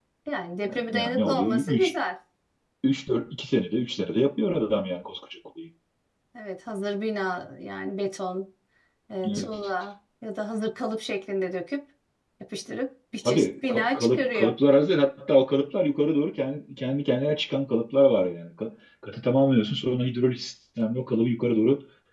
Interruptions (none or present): present